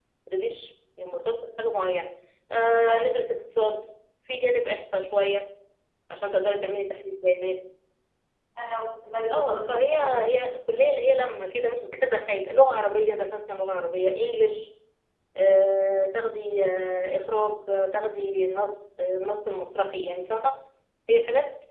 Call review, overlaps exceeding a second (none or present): present